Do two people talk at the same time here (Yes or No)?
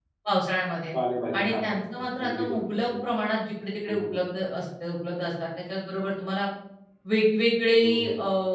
Yes